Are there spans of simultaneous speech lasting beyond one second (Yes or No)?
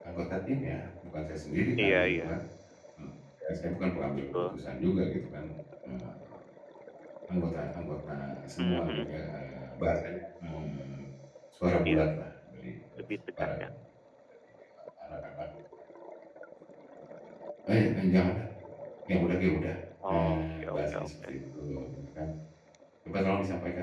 Yes